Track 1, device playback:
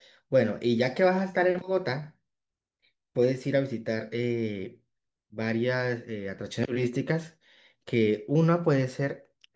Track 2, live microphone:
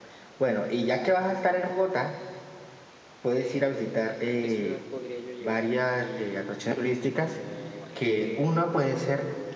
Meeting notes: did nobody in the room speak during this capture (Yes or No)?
No